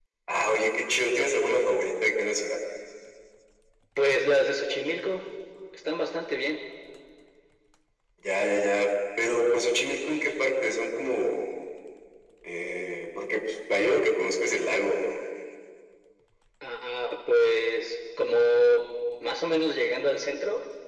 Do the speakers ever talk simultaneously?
No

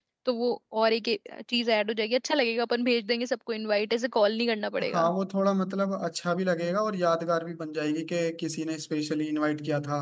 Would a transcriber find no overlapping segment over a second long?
Yes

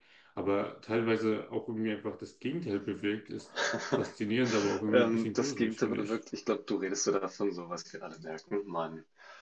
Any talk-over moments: Yes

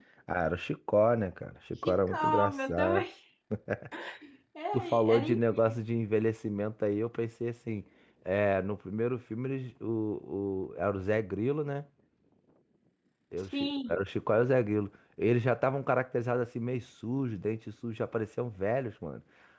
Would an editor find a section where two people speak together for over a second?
Yes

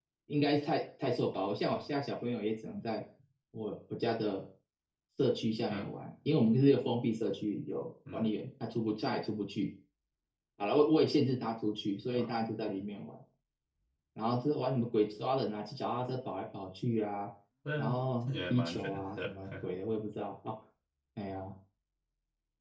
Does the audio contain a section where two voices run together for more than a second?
Yes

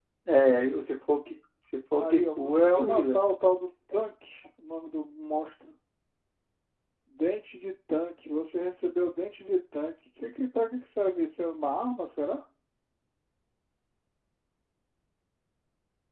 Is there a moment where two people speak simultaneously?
Yes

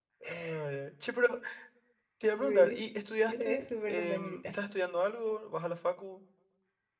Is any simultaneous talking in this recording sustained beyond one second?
Yes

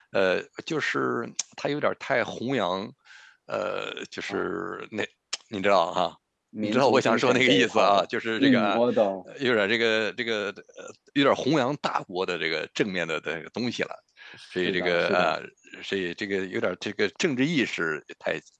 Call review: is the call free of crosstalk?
No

